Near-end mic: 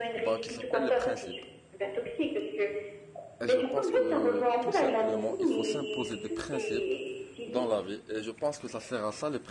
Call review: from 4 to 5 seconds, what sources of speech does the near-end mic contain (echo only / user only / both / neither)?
both